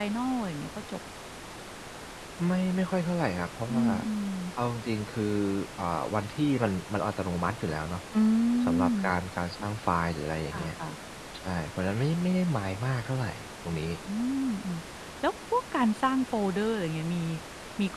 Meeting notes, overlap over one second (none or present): none